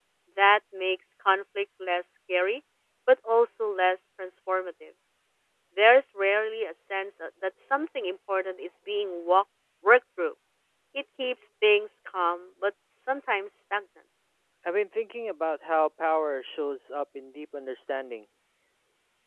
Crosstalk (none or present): none